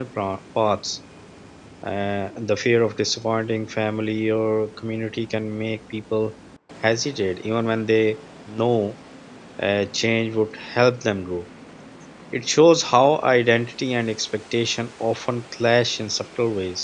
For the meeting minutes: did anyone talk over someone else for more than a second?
No

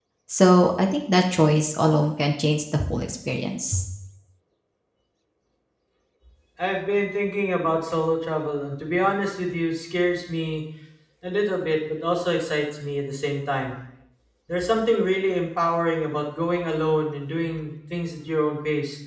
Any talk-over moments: No

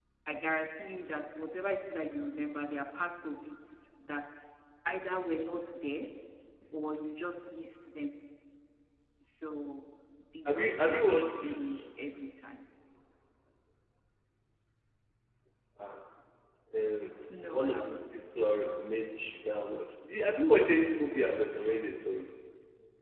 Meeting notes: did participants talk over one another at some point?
Yes, from 10.4 s

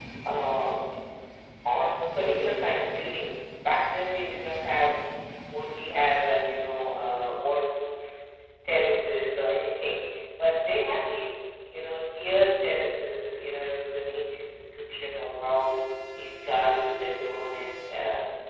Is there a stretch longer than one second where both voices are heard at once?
No

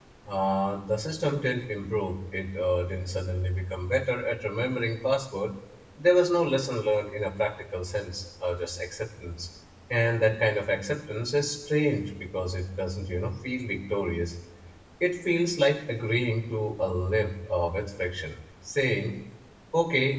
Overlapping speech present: No

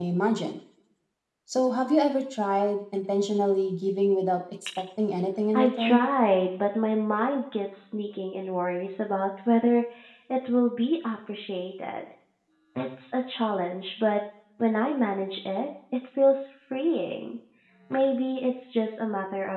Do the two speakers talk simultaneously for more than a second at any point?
No

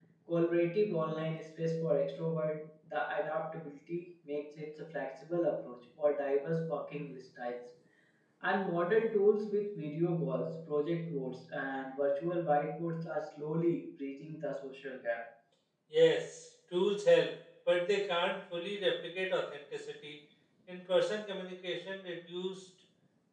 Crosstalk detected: No

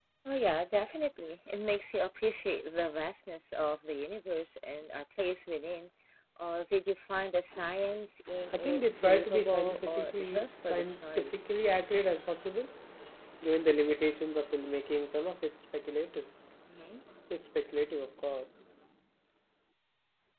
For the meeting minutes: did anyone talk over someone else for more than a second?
Yes, from 8.5 s

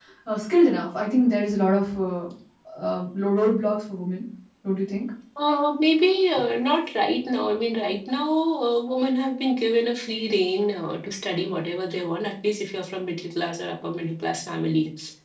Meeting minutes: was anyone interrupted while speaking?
No

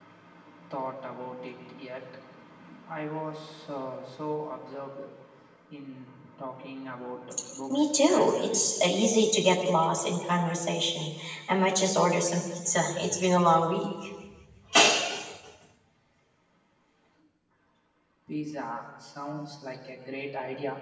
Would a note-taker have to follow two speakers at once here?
Yes, from 7.7 s

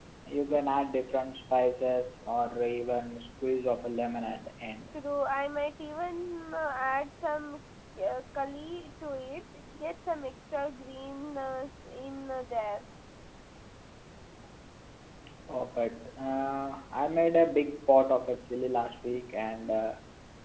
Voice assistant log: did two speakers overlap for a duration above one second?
No

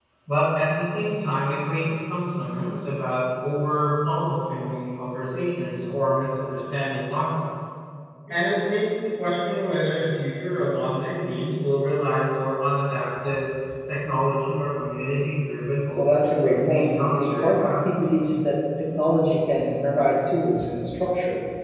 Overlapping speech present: Yes, from 15.9 s

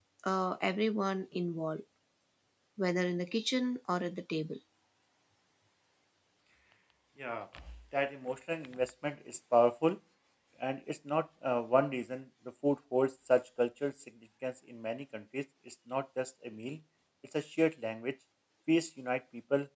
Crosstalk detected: No

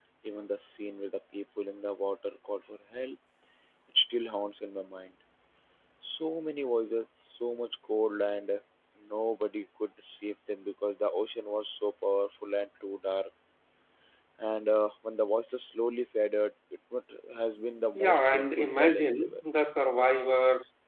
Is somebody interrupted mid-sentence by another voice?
Yes, from 17.9 s

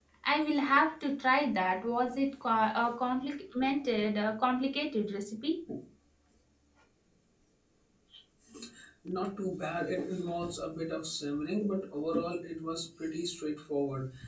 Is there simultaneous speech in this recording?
No

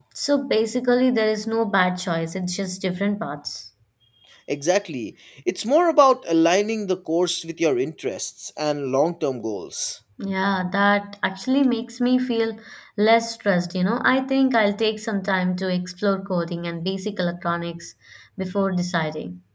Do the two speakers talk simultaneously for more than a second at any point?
No

